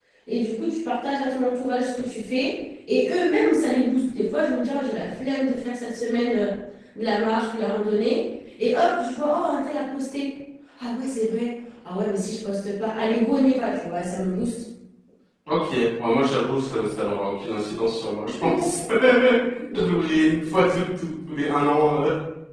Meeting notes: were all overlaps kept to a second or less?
Yes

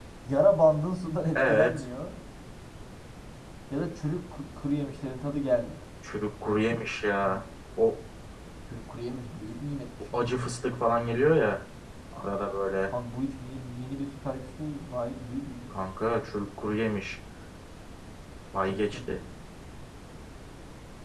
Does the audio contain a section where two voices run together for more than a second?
No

